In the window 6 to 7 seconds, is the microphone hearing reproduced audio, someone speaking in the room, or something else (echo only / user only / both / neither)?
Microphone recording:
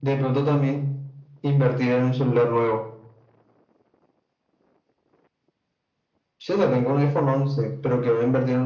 echo only